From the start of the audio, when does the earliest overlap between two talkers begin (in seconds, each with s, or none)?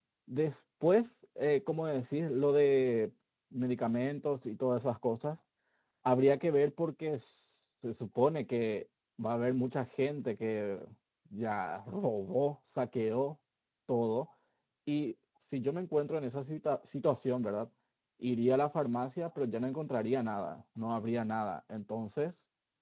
none